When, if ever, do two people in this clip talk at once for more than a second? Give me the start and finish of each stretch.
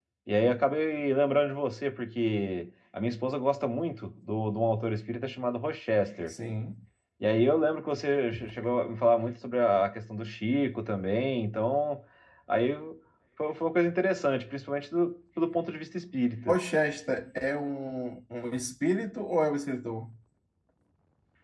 none

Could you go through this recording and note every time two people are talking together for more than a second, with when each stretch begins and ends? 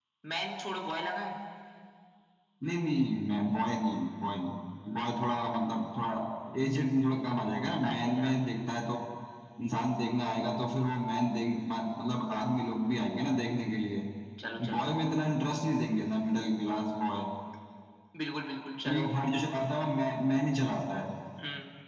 none

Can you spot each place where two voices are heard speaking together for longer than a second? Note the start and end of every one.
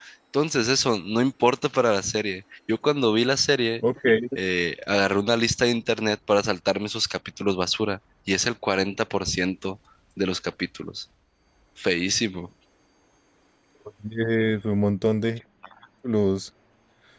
none

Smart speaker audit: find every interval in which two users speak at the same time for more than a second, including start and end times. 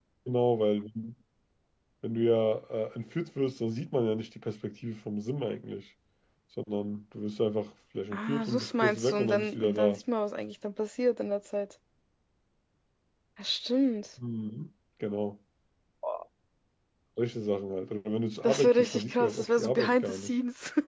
8.1-10.0, 18.4-20.3

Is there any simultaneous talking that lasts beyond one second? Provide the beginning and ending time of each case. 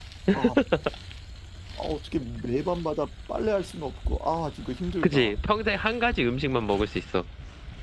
none

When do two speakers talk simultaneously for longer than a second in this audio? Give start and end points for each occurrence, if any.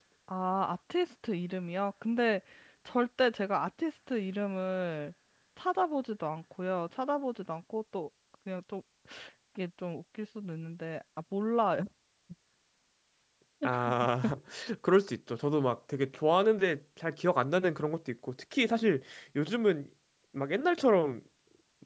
none

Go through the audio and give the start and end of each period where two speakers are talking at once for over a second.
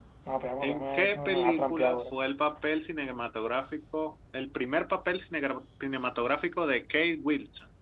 0.6-2.0

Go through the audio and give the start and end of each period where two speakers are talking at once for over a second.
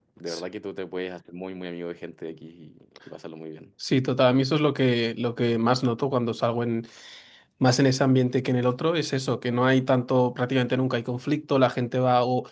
none

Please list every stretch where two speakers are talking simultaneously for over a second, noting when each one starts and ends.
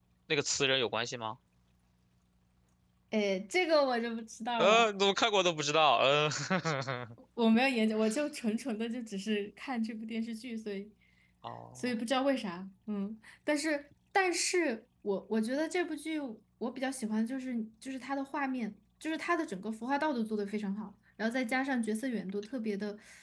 none

